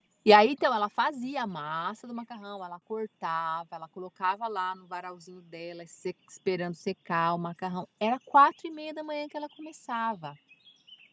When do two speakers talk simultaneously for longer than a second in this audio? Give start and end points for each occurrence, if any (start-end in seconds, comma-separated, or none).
none